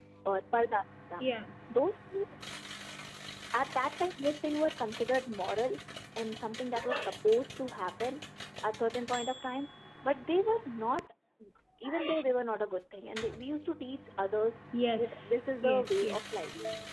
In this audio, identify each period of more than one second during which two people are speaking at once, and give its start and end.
15.0-16.2

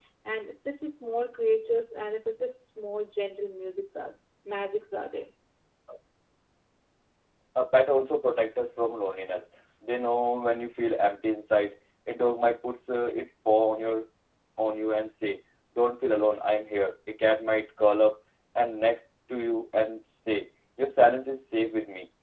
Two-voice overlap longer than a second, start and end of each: none

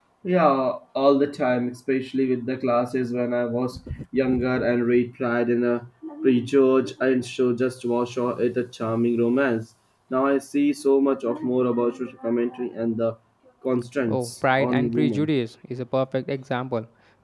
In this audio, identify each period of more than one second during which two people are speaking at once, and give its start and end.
14.1-15.3

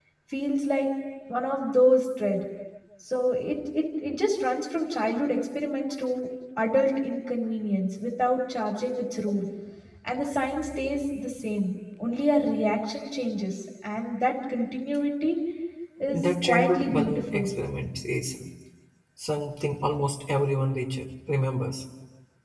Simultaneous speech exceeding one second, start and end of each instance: 16.0-17.5

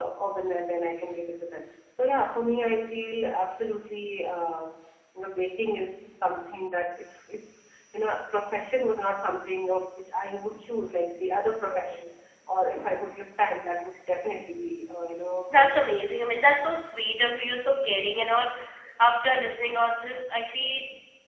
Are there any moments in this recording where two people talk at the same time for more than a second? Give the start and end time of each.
none

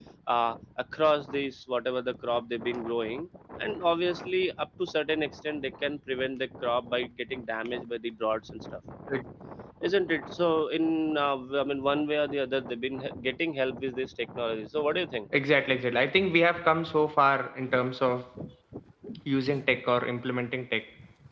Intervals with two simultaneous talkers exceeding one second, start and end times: none

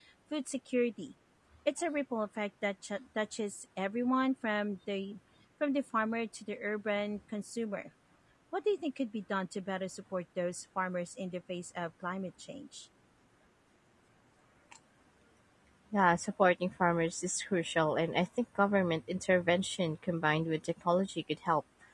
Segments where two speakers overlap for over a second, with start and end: none

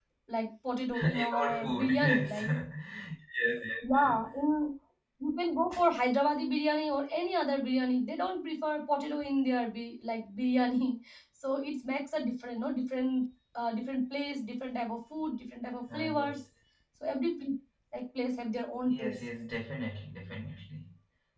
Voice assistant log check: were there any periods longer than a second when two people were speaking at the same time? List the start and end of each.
1.0-2.5

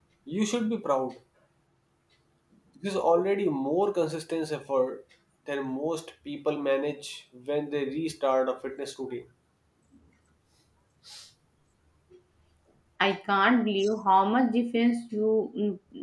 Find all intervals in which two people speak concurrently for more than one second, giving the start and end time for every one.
none

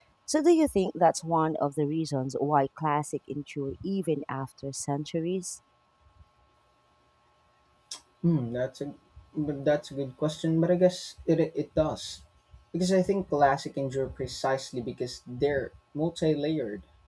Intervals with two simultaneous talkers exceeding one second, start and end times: none

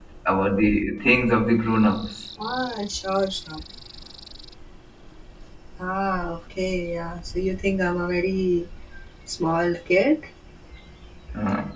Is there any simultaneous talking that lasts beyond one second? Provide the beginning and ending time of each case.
none

